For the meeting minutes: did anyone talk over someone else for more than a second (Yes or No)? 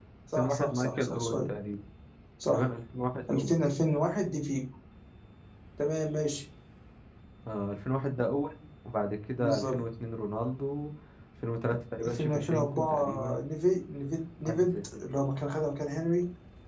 Yes